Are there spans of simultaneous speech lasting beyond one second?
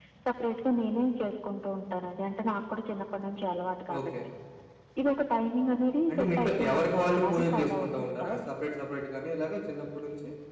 Yes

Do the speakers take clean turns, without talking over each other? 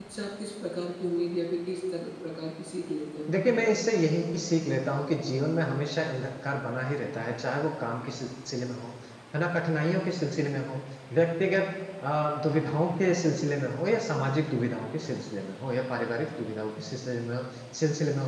Yes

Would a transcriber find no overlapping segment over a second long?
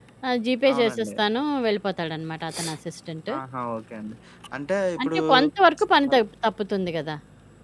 Yes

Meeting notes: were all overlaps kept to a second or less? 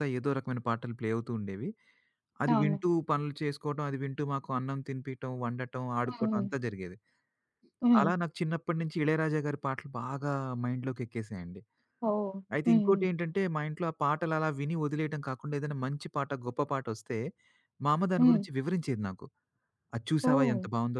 Yes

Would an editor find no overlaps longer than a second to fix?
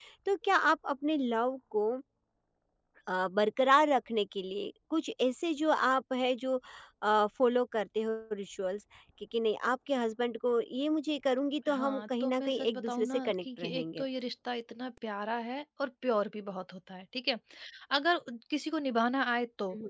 No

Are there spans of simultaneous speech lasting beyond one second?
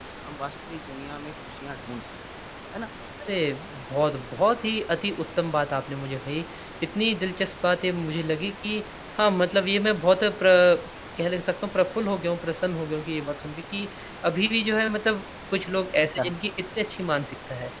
No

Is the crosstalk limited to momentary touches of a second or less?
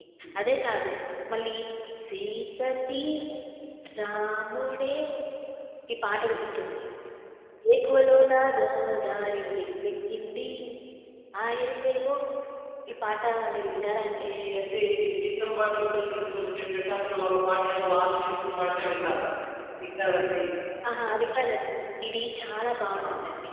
Yes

